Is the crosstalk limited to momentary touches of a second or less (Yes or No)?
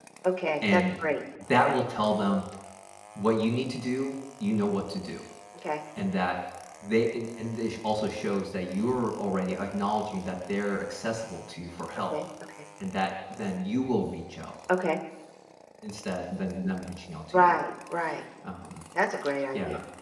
Yes